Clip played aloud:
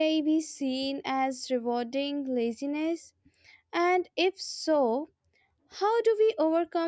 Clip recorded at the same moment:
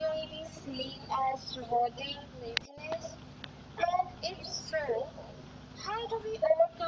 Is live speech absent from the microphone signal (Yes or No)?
Yes